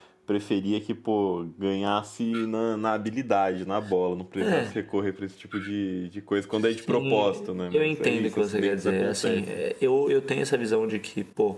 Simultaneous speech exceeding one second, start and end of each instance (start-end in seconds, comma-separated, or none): 6.9-9.4